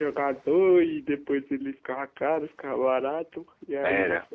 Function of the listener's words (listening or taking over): listening